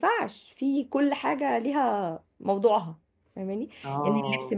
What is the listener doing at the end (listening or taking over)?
listening